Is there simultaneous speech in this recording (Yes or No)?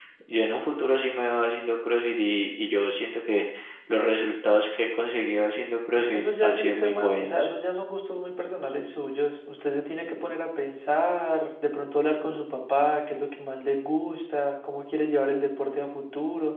Yes